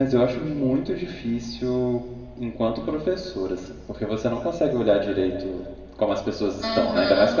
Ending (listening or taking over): taking over